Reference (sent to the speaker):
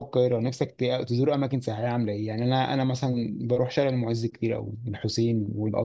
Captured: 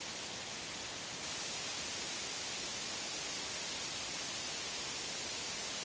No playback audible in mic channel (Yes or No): Yes